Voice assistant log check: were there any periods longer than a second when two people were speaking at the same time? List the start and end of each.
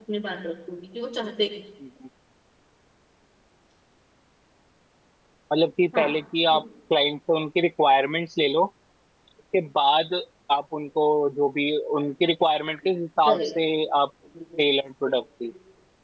none

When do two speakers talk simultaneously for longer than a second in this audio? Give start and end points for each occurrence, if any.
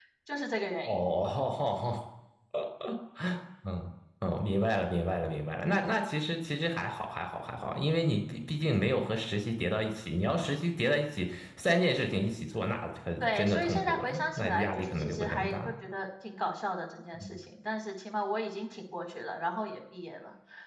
13.2-15.7

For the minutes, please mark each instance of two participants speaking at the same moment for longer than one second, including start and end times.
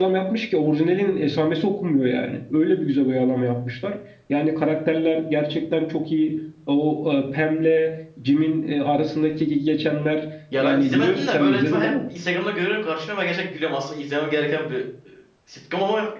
10.6-11.9

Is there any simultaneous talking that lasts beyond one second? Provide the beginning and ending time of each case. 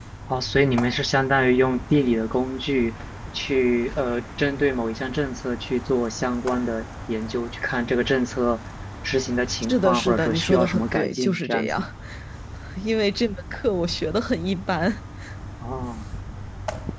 9.7-11.8

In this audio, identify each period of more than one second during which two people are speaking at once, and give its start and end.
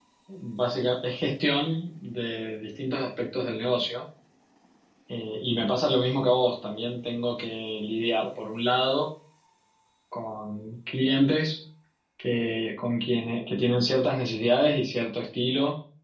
none

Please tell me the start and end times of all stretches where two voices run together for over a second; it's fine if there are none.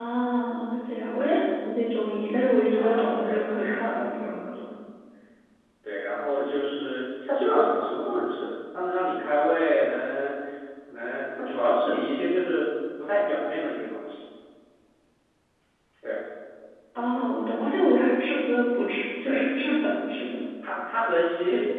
2.8-4.6

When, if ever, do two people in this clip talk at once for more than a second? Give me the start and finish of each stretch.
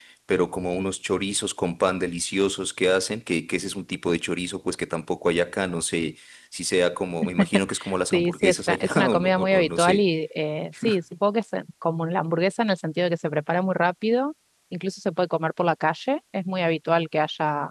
8.1-10.0

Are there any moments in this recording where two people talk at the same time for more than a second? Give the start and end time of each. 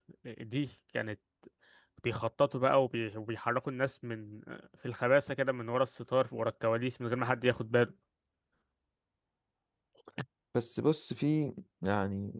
none

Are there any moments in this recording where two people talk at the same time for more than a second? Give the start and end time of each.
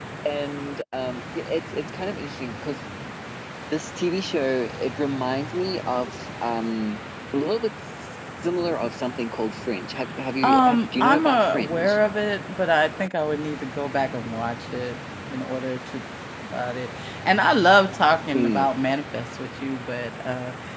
10.4-12.0

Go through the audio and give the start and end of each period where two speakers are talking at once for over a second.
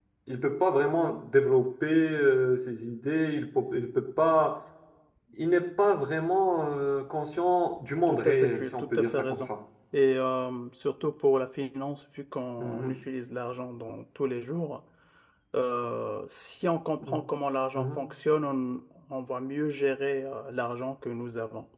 8.1-9.5

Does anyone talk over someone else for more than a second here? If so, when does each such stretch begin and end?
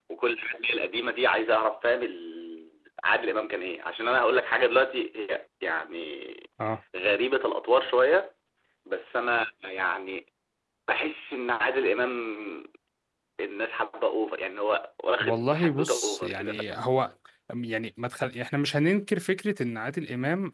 15.2-16.8

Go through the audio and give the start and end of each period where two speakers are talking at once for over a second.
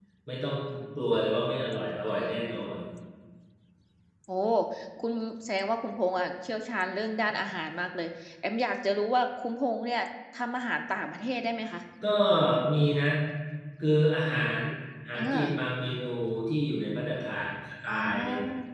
none

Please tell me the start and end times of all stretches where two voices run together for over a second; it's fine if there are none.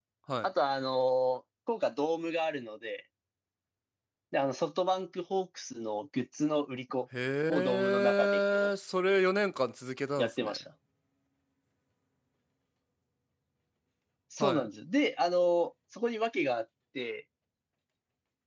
7.5-8.7

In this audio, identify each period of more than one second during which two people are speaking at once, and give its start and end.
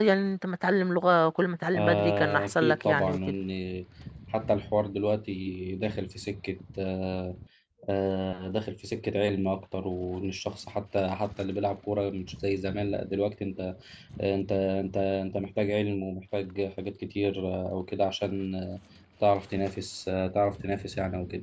1.8-3.3

